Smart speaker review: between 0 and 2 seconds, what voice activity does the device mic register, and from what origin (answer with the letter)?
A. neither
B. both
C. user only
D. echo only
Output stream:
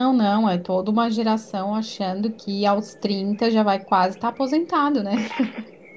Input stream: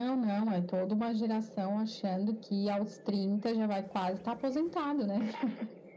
D